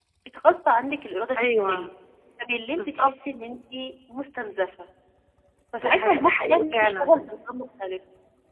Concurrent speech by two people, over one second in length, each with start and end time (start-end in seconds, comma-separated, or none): 5.7-7.3